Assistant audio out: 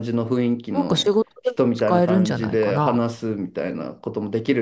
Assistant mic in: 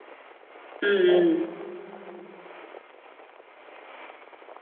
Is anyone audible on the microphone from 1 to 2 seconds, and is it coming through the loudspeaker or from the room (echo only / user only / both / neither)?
user only